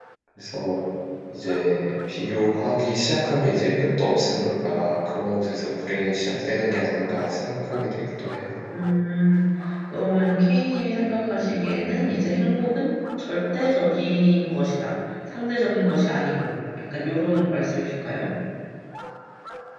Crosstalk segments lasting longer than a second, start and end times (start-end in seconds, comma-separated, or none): none